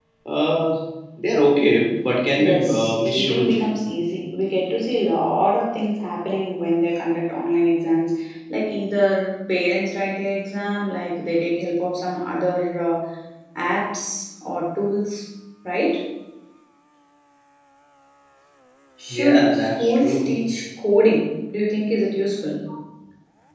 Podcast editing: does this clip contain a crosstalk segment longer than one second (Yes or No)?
Yes